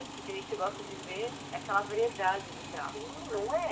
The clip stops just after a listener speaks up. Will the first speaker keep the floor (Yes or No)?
No